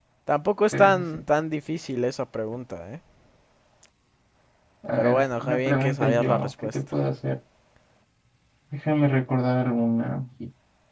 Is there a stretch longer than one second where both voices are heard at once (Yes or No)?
Yes